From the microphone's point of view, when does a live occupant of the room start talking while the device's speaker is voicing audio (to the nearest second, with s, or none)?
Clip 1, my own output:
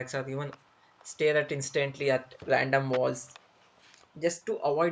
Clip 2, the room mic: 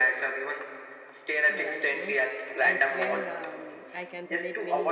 1 s